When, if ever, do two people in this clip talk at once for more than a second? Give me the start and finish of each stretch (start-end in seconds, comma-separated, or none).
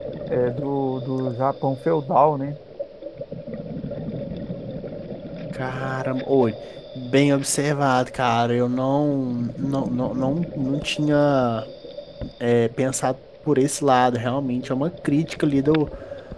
none